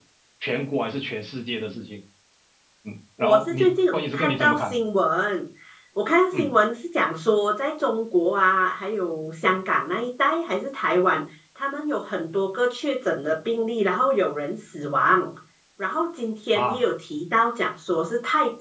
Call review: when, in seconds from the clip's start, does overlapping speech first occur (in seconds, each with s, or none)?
3.2 s